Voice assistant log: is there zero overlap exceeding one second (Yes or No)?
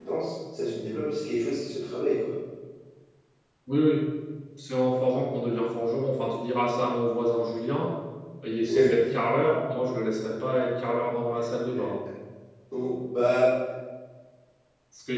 Yes